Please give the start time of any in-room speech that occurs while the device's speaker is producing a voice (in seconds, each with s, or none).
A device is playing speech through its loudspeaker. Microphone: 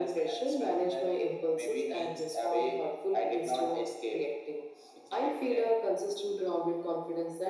none